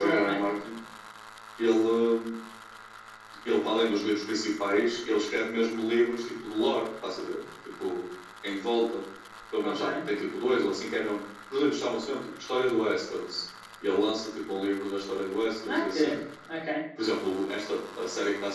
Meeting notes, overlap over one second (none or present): none